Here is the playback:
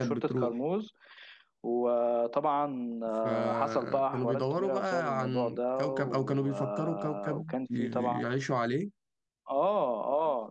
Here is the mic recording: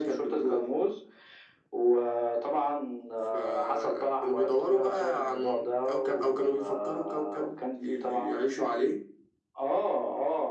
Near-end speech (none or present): none